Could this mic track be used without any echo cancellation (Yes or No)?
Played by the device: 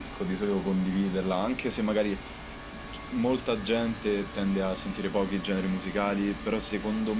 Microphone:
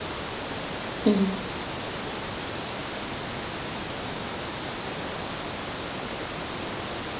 Yes